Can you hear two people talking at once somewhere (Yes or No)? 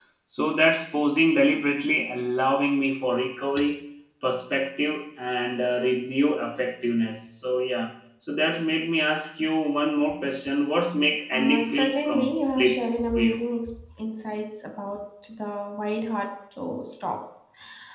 Yes